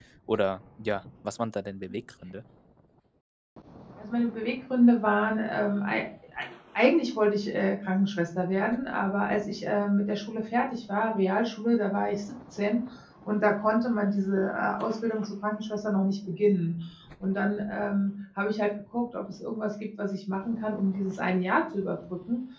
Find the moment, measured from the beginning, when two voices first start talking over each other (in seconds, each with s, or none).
none